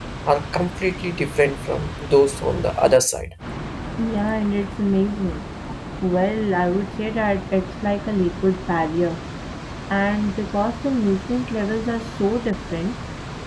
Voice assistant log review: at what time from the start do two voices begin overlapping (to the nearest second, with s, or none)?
none